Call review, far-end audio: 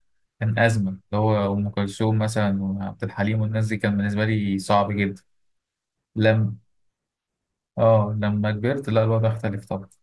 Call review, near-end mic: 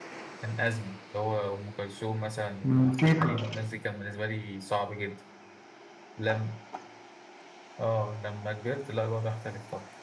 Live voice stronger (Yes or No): Yes